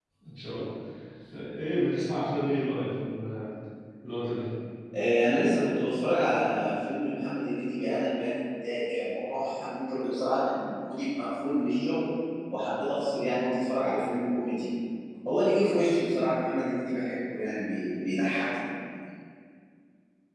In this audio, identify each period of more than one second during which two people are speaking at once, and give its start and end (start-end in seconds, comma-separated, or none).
none